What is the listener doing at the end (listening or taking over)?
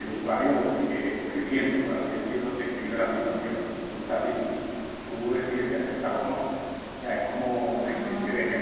listening